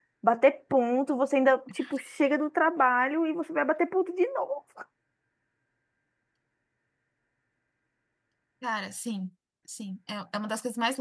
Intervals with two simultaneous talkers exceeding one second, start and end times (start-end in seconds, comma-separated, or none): none